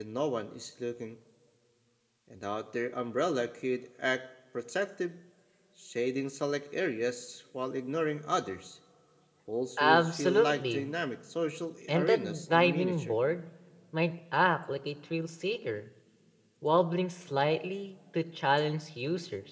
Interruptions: present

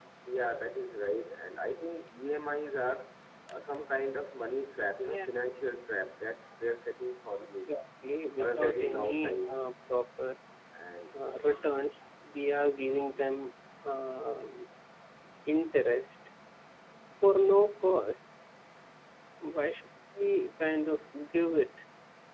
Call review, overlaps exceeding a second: present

